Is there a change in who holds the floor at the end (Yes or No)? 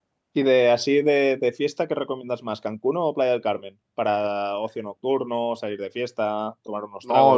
Yes